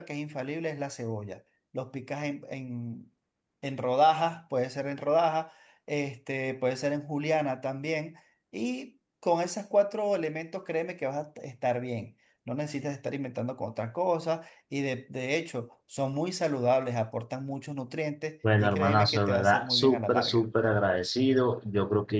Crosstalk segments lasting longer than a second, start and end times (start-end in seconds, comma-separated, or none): 18.6-20.4